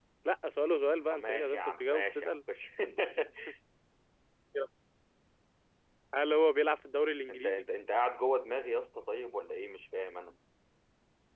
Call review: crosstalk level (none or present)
present